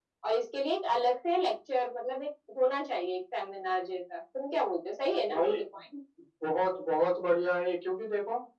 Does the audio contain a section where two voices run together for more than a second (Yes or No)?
No